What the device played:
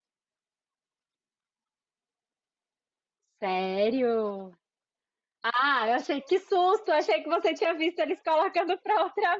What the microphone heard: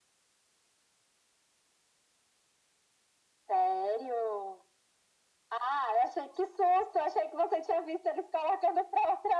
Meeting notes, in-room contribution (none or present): none